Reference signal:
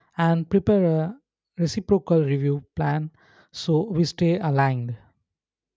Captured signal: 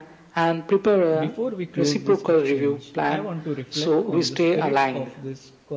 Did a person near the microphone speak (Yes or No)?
Yes